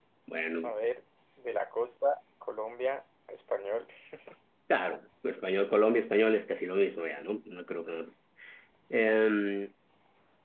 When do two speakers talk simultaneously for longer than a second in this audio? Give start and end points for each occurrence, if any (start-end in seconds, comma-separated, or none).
none